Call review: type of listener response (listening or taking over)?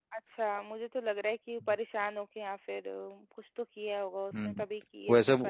taking over